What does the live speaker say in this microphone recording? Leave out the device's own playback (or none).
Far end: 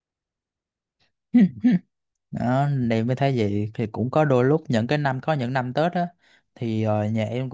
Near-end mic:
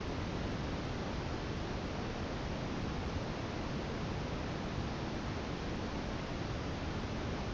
none